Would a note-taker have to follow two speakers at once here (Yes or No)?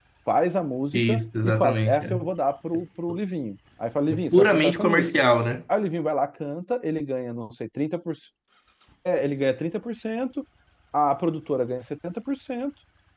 Yes